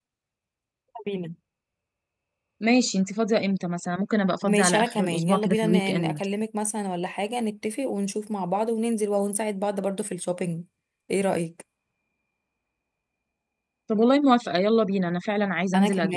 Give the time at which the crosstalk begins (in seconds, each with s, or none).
4.5 s